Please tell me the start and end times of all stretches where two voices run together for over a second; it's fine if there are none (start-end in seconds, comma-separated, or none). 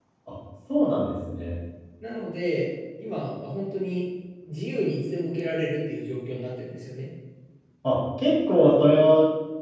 none